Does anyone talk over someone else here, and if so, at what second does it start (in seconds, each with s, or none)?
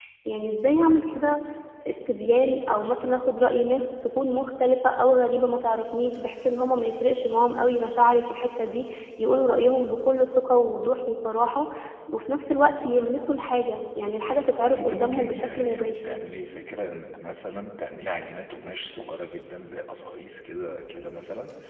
14.8 s